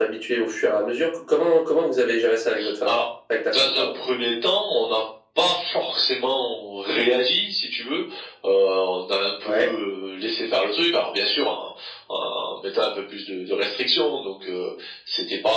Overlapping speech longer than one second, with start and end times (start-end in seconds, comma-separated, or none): none